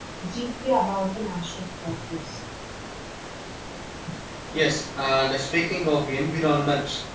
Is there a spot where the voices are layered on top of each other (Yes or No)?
No